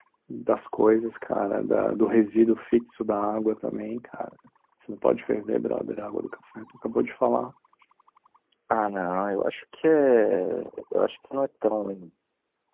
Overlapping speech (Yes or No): No